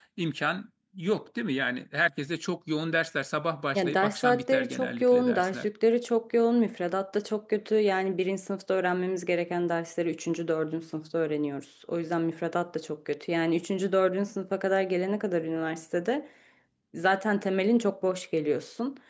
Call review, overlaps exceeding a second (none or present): present